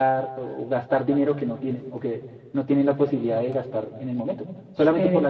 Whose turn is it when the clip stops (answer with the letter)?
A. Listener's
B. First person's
B